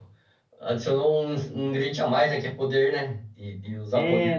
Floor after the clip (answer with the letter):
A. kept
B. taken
B